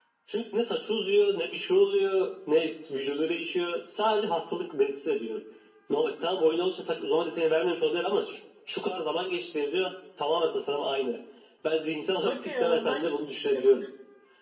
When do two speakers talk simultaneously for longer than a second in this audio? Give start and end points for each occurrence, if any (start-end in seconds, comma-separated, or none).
12.2-13.8